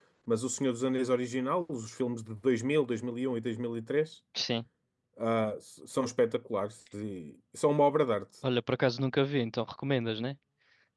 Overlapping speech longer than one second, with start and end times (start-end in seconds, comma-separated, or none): none